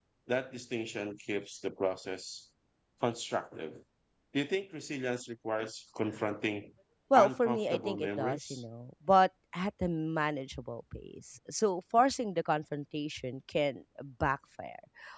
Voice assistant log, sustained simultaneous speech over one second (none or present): present